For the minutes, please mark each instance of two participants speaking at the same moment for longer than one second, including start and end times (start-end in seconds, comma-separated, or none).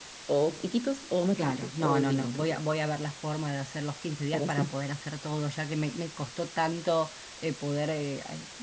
1.4-2.6